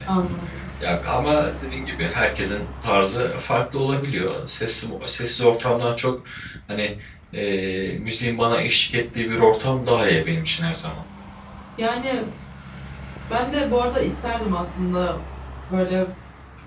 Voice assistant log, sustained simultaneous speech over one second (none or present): none